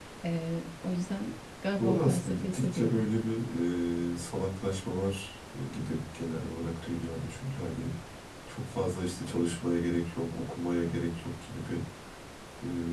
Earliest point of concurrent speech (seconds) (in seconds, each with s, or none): 1.8 s